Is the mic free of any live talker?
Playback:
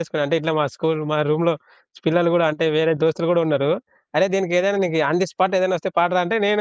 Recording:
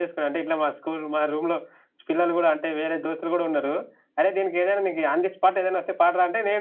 Yes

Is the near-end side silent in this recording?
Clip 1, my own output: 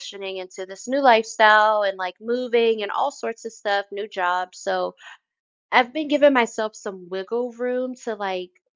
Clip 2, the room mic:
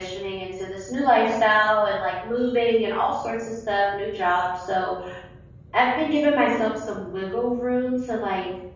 Yes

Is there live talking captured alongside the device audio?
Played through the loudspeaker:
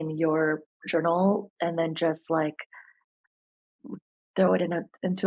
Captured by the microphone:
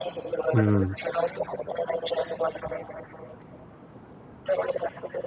Yes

